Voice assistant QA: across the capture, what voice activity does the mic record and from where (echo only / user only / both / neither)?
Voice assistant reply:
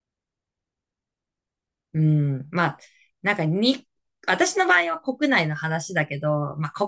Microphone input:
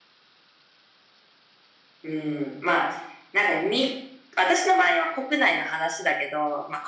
echo only